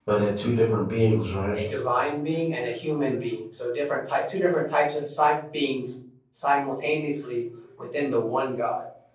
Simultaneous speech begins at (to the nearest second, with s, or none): none